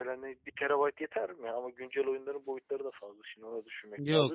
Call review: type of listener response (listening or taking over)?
taking over